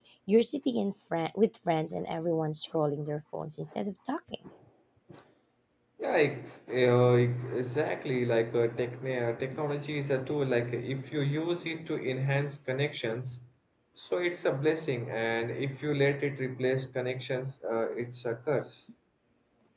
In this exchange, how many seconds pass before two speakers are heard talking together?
none

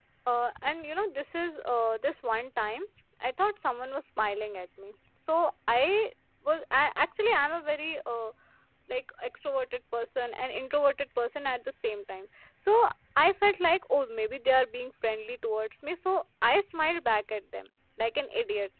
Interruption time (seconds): none

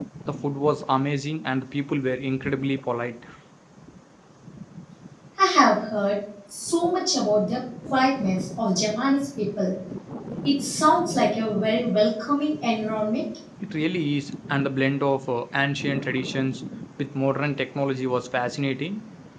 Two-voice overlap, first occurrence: none

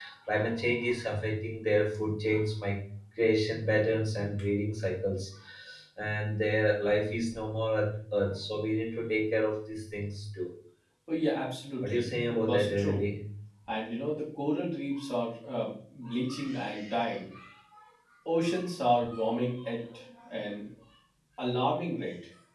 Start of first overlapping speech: 12 s

